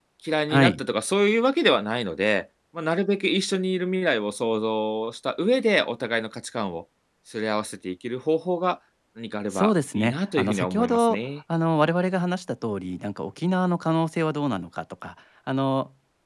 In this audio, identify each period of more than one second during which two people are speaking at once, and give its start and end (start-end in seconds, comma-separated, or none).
9.5-11.2